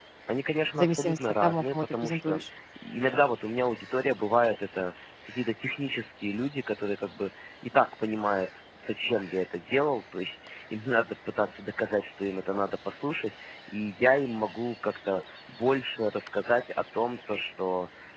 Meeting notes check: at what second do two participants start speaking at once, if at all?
0.8 s

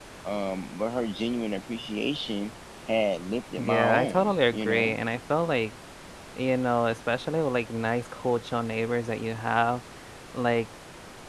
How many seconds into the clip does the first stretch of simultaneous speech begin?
3.6 s

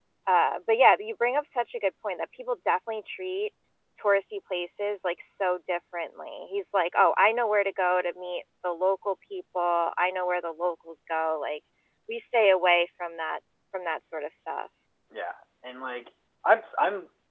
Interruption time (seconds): none

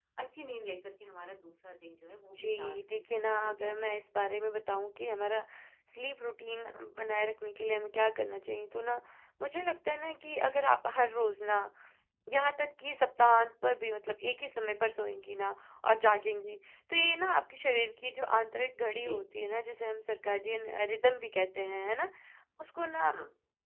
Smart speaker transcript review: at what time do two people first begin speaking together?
2.6 s

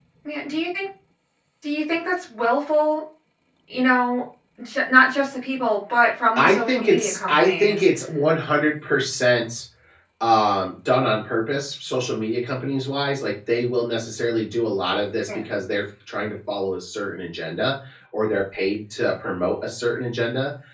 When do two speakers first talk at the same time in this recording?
6.4 s

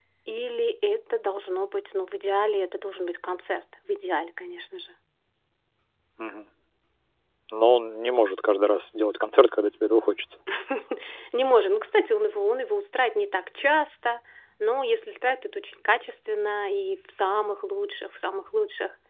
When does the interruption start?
none

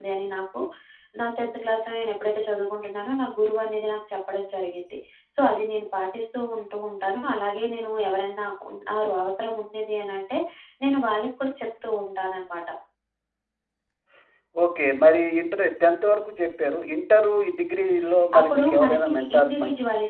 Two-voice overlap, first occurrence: 18.3 s

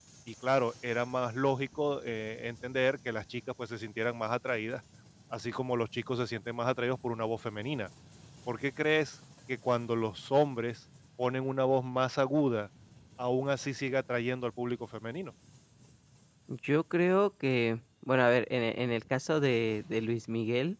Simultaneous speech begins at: none

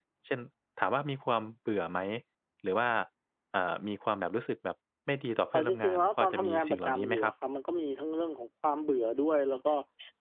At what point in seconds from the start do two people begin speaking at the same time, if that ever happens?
5.5 s

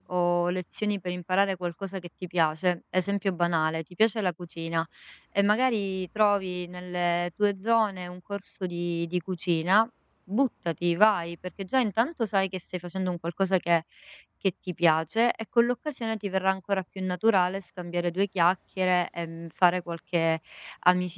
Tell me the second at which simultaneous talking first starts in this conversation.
none

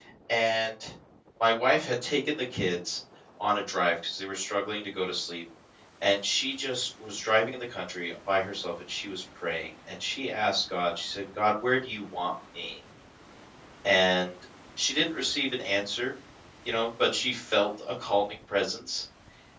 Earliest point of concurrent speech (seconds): none

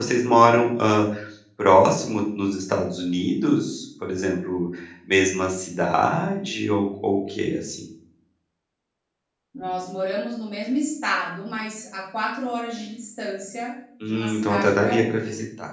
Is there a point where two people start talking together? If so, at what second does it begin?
14.0 s

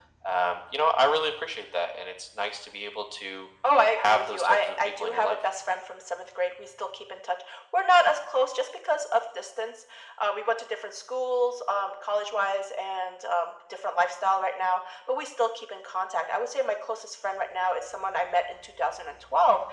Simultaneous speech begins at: 4.0 s

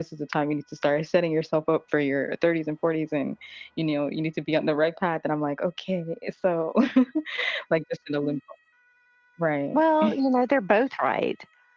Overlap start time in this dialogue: none

